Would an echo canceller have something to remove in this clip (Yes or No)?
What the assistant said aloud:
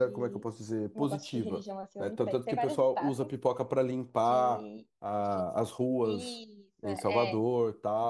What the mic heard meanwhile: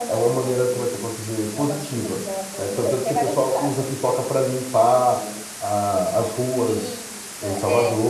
Yes